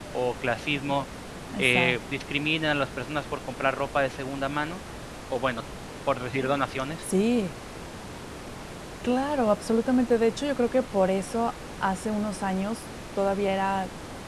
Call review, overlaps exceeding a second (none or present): none